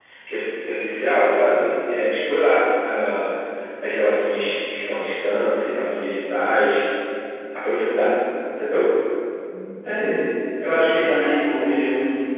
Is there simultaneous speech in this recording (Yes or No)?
No